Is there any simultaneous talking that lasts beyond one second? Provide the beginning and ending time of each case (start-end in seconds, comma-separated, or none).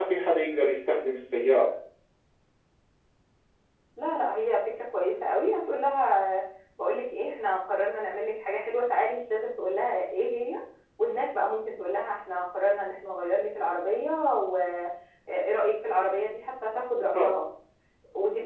none